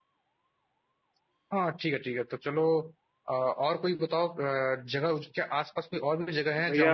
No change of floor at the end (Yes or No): No